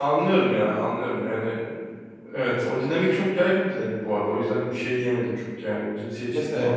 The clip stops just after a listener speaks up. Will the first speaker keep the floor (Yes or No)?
No